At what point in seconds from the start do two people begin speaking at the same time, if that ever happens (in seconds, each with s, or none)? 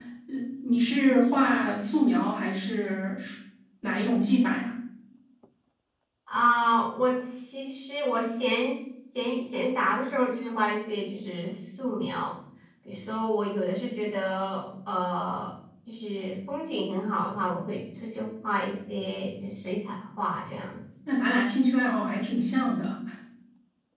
none